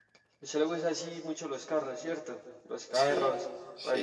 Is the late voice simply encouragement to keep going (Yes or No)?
No